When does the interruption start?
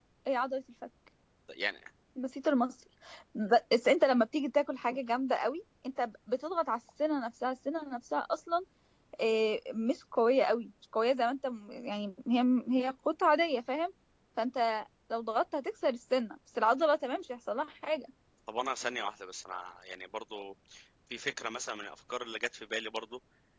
none

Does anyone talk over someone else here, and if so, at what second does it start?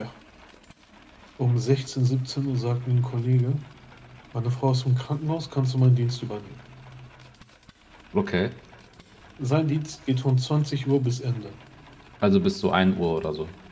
none

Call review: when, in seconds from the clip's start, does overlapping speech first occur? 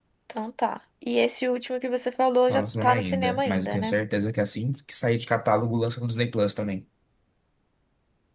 2.5 s

